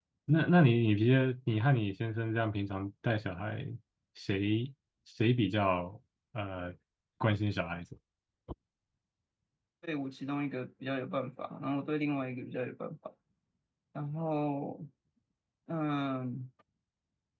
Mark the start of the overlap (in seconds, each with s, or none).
none